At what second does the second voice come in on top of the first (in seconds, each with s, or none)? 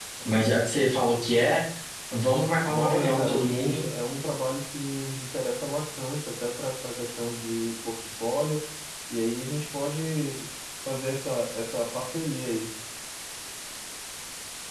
2.6 s